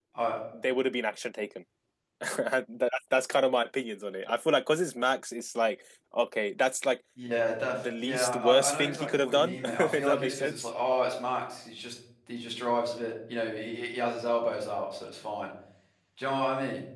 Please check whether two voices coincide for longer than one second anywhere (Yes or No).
Yes